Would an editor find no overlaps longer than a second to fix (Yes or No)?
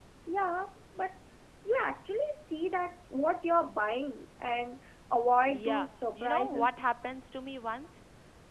No